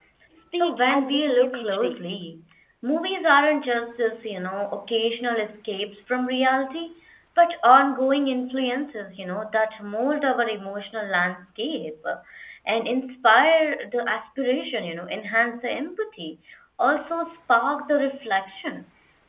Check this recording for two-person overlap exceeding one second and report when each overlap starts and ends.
0.5-2.0

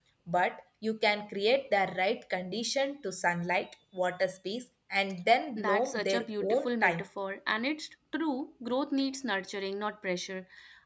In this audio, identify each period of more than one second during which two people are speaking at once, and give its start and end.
5.5-7.0

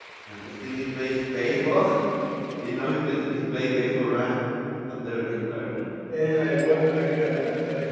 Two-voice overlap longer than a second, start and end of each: none

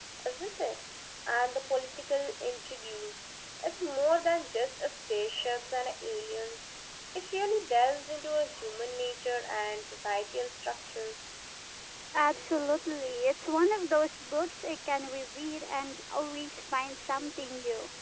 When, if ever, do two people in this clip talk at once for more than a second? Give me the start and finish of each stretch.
none

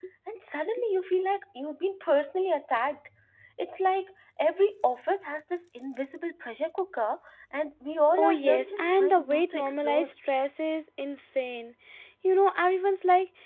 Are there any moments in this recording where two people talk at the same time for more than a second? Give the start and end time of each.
8.2-10.1

